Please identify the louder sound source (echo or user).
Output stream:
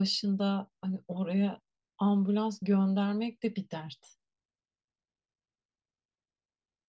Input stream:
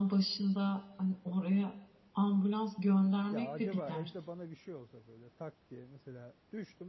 echo